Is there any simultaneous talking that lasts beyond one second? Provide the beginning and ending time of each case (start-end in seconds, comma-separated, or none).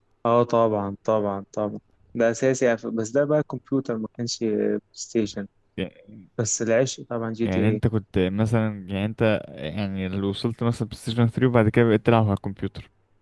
none